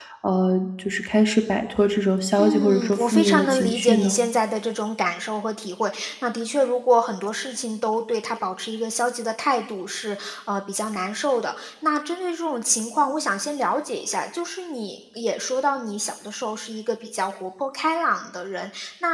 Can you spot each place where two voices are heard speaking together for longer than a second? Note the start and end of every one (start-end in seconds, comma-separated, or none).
2.4-4.2